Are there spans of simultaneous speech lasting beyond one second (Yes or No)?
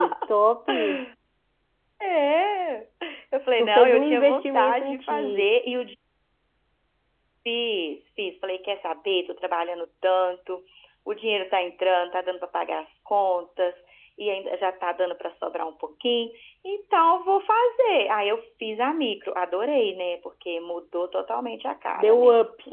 Yes